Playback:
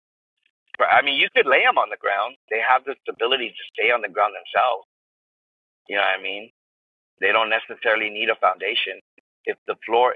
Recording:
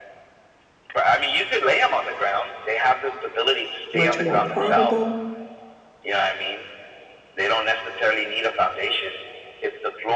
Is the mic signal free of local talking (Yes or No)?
No